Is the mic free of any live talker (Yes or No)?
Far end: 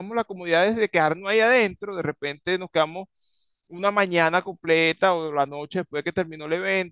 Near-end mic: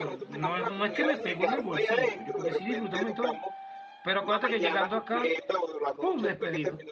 No